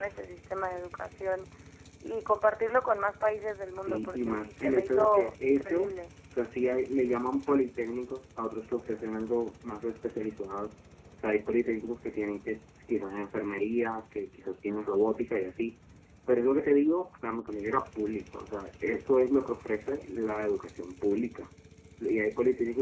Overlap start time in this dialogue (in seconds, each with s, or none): 3.9 s